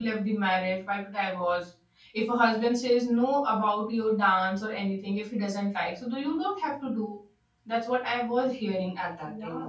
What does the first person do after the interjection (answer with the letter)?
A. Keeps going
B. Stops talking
B